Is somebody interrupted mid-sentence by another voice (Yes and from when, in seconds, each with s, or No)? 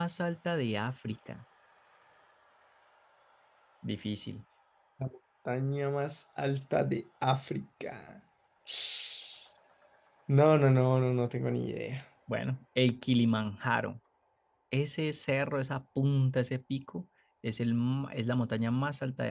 No